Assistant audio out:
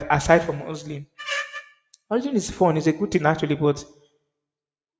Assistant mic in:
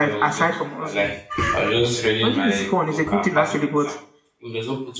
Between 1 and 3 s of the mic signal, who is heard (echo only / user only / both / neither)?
both